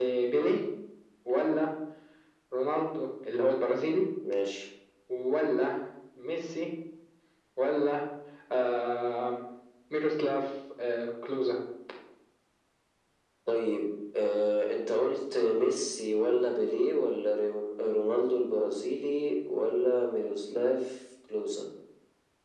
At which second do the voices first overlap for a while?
none

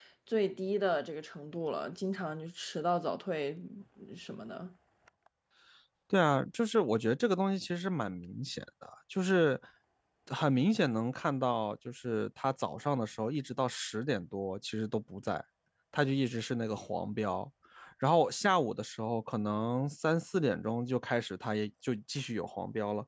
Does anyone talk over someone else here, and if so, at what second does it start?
none

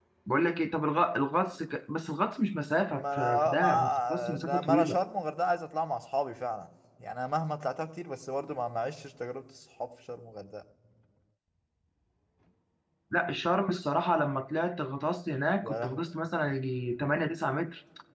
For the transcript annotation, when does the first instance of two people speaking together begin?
2.9 s

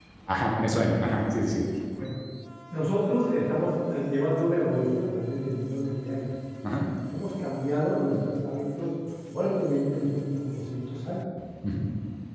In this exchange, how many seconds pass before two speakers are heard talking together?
none

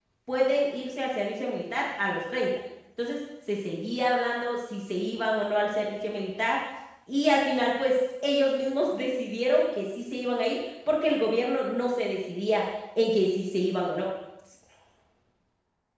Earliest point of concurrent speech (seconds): none

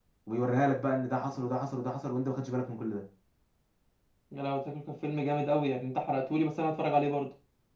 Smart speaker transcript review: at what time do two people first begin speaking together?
none

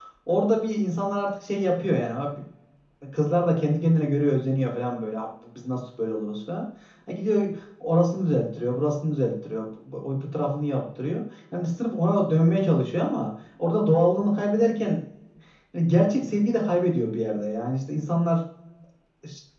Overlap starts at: none

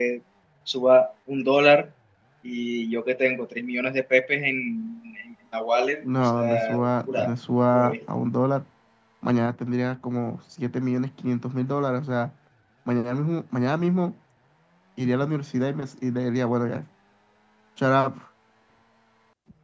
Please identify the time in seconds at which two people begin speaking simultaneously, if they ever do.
6.0 s

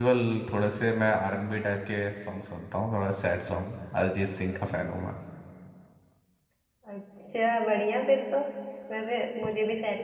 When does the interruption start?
none

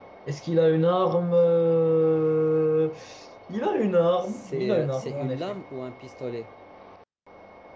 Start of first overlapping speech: 4.2 s

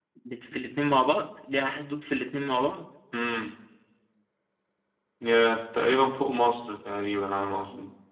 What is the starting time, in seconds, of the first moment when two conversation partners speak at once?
none

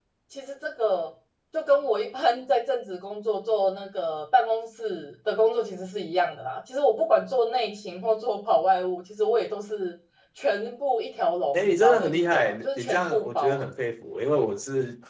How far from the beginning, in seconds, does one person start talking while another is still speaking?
11.5 s

